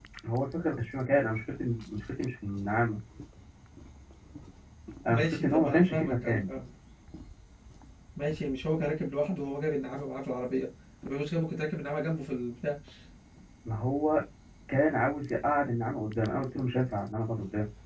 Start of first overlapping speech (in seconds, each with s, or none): 5.1 s